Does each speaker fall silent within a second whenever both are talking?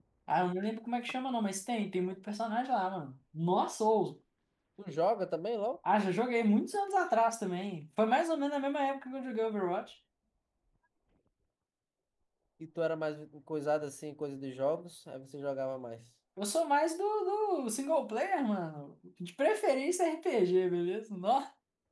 Yes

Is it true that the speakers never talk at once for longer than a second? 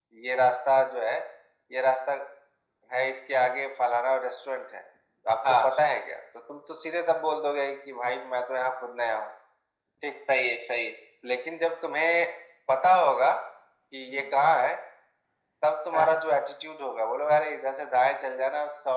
Yes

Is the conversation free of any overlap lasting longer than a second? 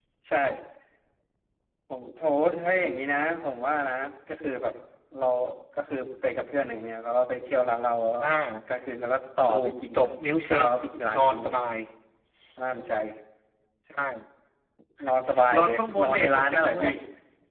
No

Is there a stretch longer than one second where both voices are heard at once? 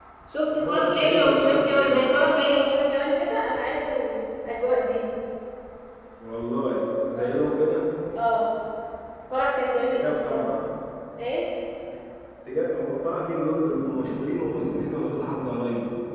Yes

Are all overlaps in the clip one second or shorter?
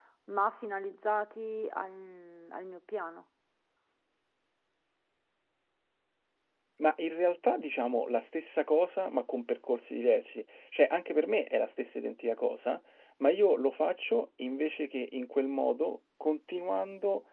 Yes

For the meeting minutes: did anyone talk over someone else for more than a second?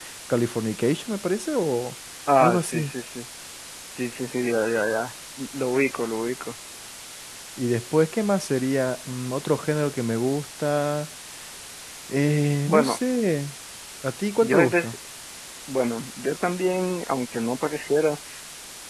No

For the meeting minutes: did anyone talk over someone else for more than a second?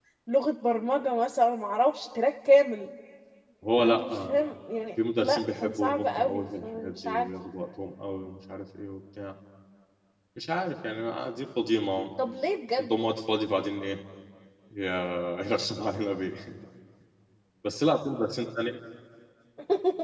Yes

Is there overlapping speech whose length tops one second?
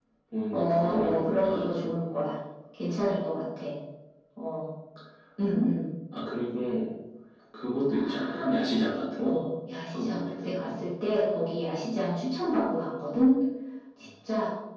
Yes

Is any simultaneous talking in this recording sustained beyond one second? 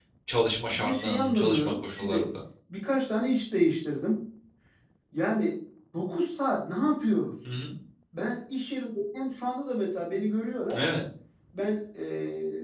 Yes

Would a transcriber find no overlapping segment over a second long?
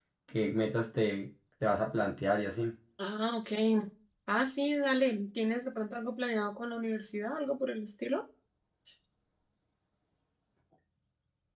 Yes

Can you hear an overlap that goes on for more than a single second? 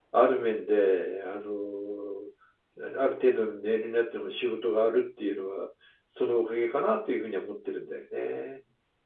No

